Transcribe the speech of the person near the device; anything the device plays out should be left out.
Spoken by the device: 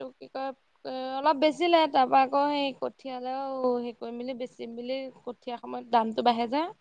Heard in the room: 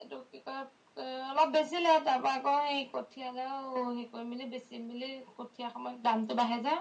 none

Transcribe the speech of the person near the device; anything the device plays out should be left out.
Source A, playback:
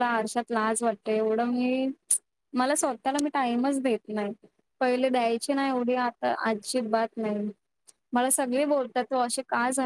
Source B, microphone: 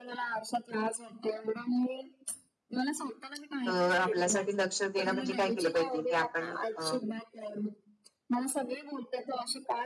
अ आपल्यासाठी लक्ष देणं म्हणजे काय केलं पाहिजे की आपण अ

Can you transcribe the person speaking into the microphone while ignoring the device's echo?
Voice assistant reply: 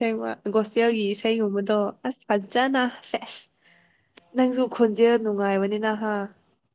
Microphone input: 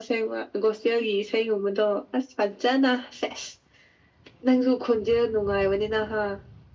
none

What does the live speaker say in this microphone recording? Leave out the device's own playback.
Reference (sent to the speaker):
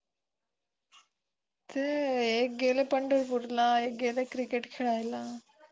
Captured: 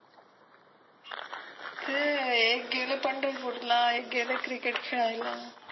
none

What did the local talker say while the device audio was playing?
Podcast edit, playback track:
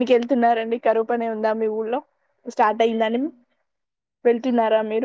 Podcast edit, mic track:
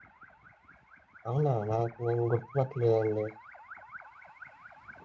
అవునా నాకు నేను గుర్తుపట్టలేదండి

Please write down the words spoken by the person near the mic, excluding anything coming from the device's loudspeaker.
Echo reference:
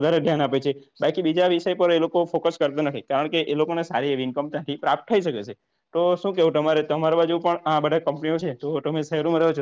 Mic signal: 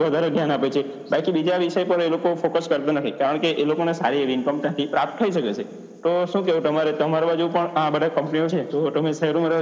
none

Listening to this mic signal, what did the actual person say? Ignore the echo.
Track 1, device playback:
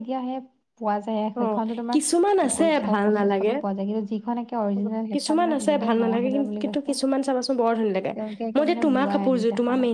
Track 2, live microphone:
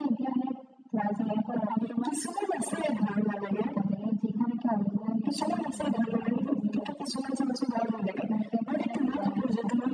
none

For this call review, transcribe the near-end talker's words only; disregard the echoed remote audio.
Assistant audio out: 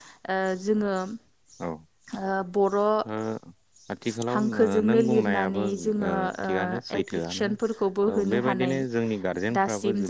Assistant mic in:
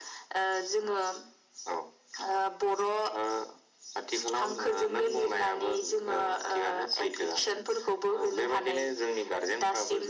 none

